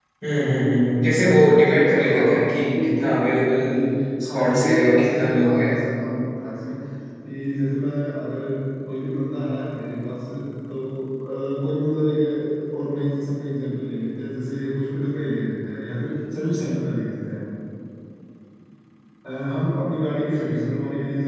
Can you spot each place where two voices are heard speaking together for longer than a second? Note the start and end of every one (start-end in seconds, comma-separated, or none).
1.8-3.1, 4.3-5.7